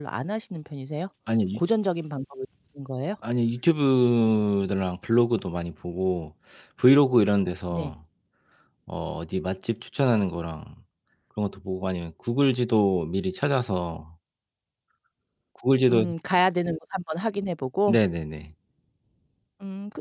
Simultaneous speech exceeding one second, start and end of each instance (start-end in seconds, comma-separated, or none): none